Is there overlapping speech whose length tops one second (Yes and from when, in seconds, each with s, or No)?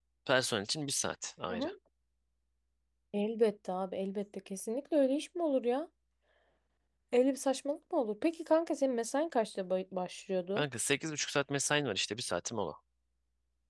No